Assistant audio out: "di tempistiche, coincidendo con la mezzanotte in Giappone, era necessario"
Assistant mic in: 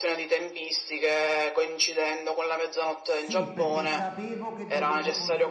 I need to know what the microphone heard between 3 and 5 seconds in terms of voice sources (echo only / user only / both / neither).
both